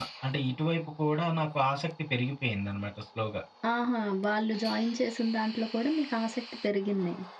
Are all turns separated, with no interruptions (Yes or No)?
Yes